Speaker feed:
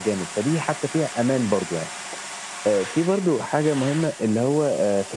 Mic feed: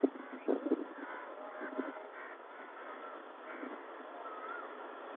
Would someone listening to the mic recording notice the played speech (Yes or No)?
No